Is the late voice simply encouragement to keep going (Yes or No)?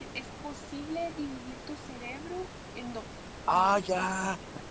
No